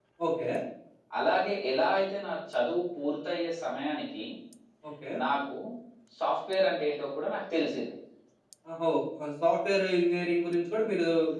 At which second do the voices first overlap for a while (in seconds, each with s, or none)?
none